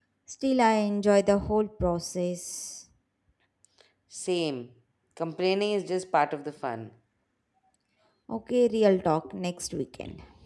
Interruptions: none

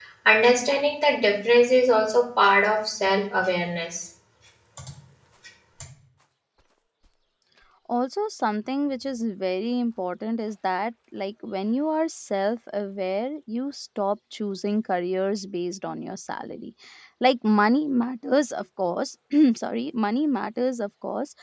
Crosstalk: none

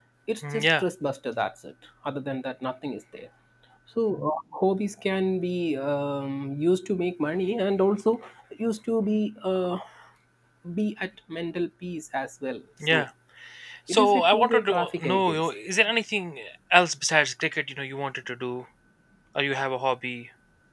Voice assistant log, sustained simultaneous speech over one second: present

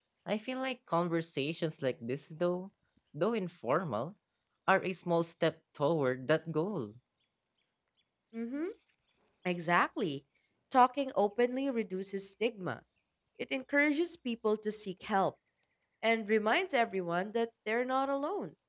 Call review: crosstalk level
none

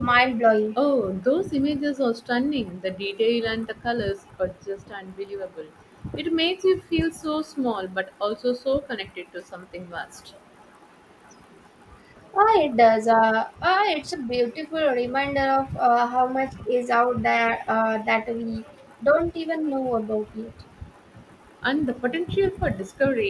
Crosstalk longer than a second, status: none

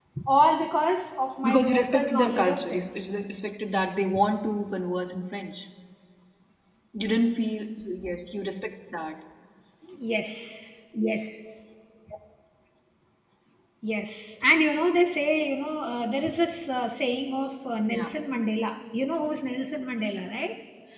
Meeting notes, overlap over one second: present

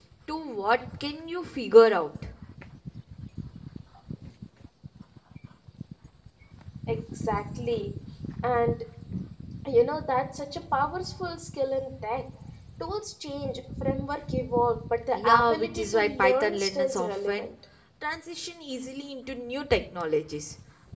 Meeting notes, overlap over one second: present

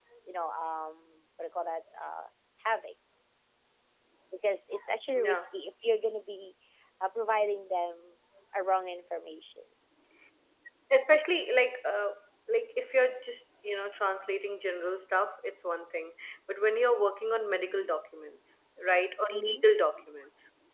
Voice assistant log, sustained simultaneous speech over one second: none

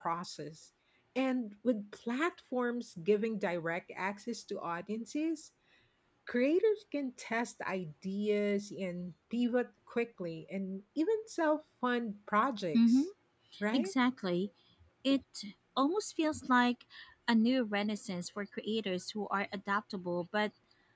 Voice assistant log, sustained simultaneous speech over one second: none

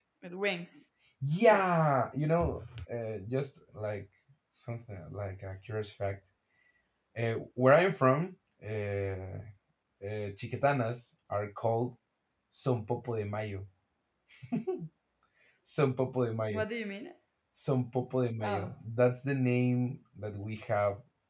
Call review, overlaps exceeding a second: none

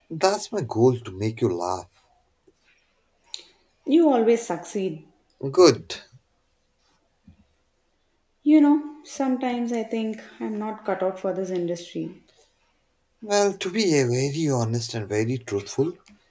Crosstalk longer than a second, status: none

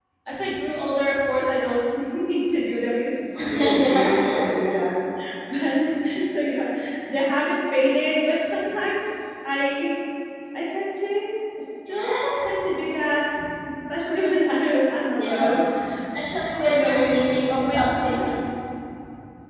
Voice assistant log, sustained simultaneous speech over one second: present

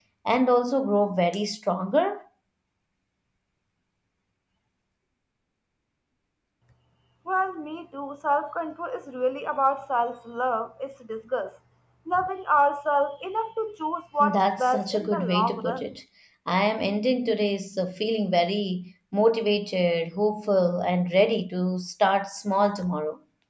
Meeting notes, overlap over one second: present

